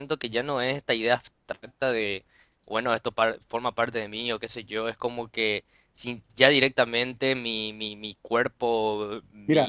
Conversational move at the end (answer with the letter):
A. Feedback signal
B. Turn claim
B